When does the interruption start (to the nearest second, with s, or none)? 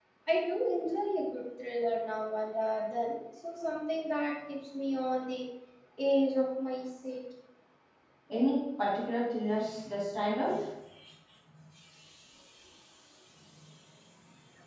none